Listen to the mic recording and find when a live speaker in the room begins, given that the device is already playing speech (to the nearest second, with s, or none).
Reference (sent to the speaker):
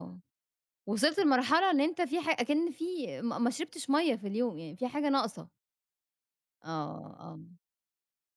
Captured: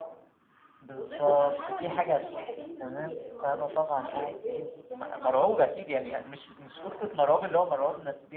1 s